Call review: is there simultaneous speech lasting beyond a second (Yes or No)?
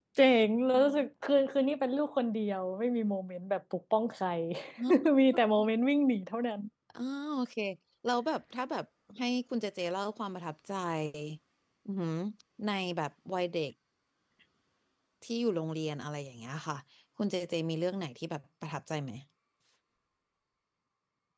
No